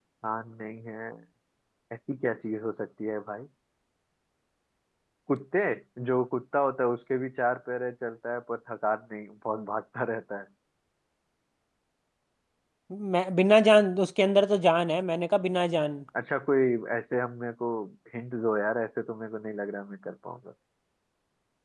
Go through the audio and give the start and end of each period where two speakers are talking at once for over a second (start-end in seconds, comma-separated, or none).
none